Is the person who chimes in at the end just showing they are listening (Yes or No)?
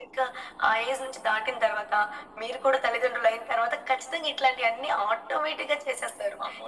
No